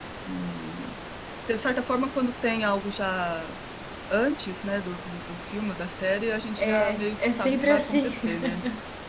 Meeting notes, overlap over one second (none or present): present